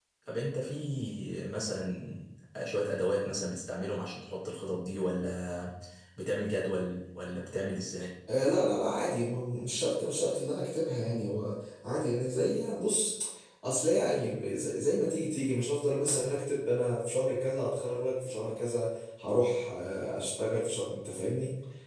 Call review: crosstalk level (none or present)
none